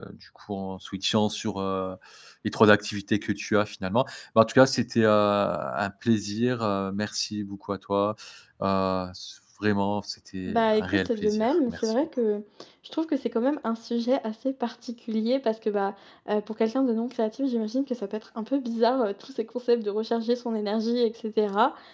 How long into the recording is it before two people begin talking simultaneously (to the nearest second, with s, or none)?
10 s